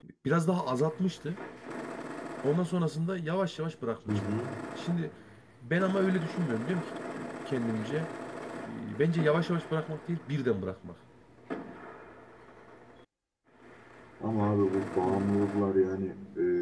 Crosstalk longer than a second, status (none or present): none